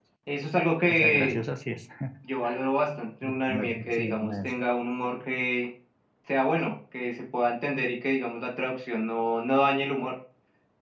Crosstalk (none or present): present